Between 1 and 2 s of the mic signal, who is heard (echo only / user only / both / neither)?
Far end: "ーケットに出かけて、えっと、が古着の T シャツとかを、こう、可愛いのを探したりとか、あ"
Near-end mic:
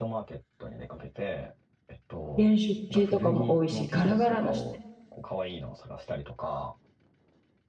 echo only